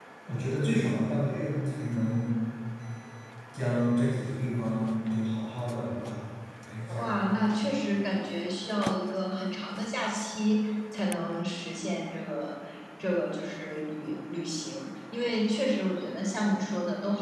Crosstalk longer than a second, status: none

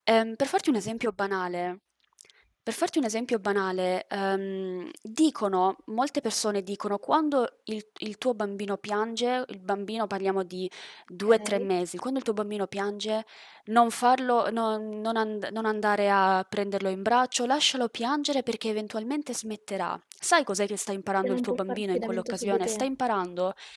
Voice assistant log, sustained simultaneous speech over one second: present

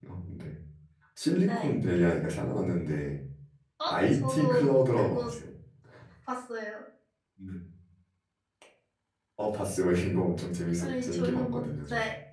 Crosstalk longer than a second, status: present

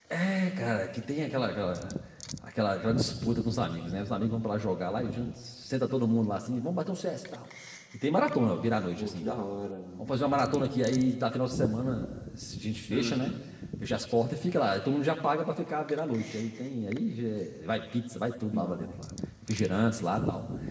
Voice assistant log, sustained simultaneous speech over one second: none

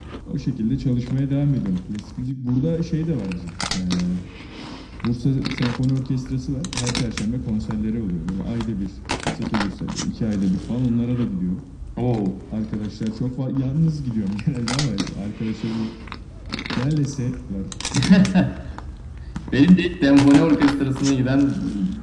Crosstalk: none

